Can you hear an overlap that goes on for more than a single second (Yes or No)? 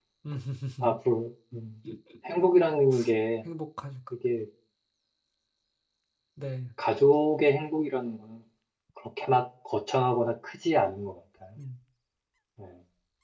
No